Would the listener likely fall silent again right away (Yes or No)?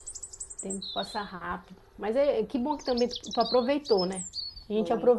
Yes